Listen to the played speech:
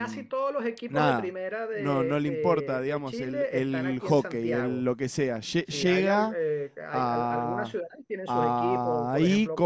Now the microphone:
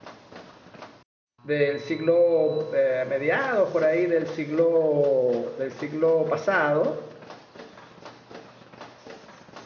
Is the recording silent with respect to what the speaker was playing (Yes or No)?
Yes